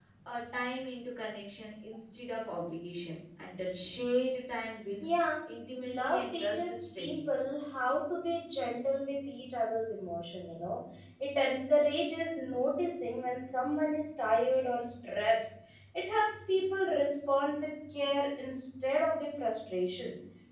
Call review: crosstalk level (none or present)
present